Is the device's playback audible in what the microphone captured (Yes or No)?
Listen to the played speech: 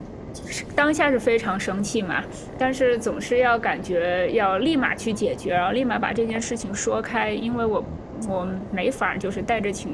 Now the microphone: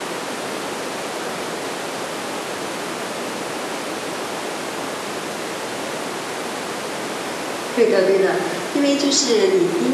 No